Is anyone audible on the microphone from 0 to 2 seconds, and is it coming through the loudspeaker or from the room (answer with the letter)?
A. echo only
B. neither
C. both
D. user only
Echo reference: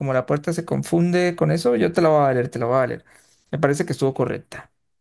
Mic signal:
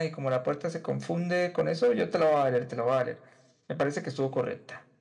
A